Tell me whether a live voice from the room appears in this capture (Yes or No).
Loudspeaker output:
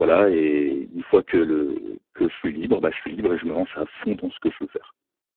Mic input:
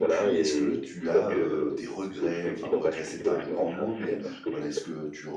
Yes